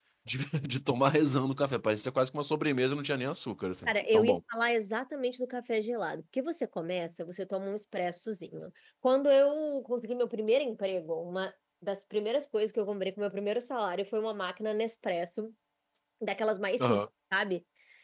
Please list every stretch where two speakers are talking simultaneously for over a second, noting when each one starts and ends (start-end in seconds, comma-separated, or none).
none